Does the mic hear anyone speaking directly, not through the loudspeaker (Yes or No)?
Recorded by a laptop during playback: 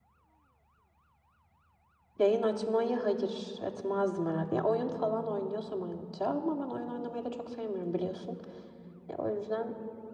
Yes